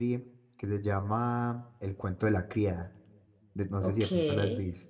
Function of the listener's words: taking over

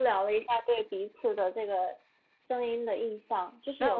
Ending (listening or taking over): taking over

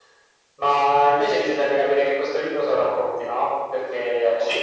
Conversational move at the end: listening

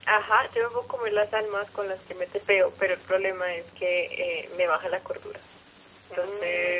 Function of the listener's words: taking over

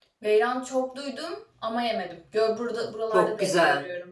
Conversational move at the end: taking over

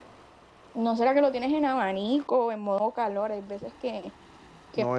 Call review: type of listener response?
taking over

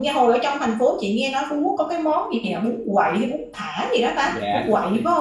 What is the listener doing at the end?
taking over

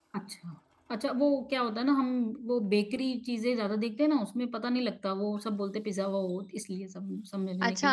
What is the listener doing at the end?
taking over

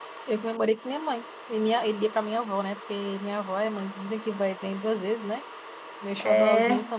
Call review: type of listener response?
listening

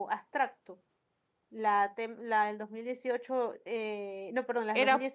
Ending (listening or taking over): listening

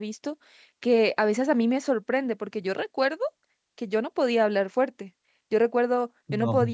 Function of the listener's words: listening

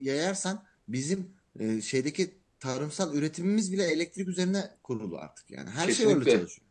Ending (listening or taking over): taking over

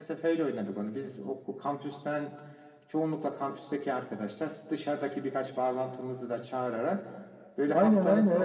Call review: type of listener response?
taking over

